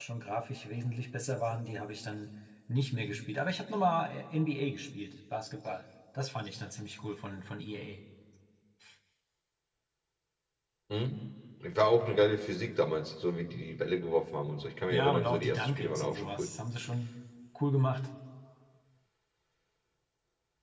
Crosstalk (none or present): present